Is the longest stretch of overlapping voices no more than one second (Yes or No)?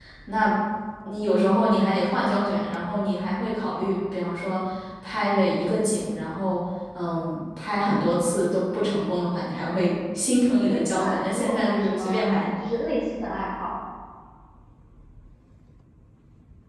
No